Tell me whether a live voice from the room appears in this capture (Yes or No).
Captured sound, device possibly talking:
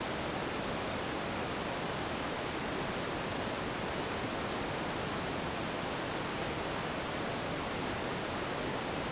No